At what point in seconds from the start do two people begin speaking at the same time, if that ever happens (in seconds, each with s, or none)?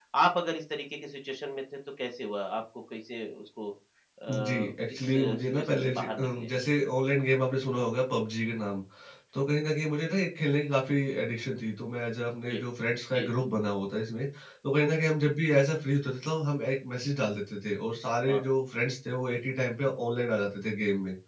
4.3 s